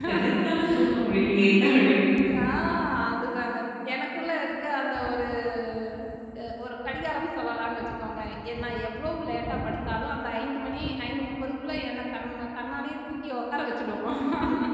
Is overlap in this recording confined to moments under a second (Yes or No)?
Yes